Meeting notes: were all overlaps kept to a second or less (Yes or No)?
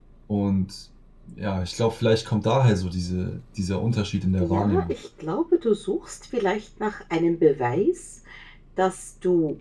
Yes